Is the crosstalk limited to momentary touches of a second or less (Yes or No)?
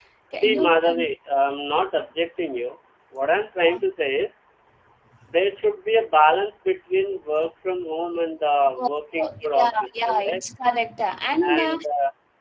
No